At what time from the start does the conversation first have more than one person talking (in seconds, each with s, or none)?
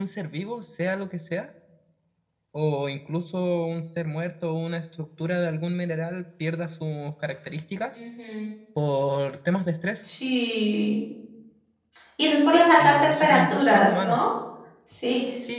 12.8 s